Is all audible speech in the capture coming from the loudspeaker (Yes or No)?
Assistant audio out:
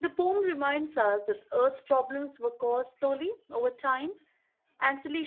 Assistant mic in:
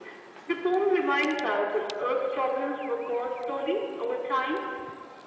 Yes